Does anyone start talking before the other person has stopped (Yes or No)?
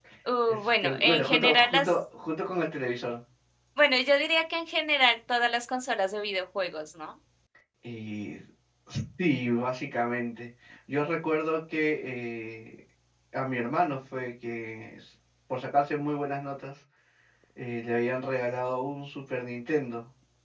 Yes